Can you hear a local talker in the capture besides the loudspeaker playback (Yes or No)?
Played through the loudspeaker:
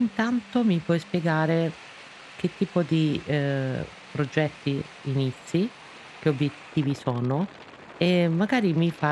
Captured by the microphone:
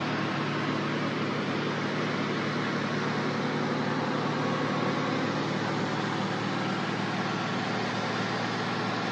No